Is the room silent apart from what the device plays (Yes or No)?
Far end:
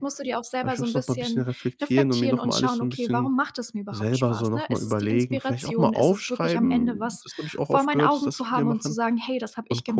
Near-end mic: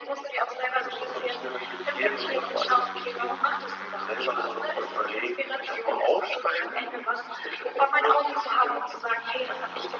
Yes